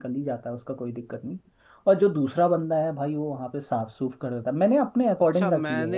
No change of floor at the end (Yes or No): No